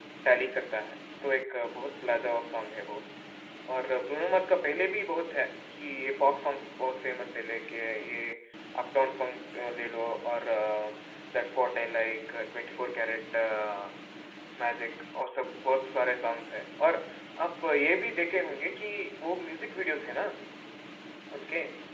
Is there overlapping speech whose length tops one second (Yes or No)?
No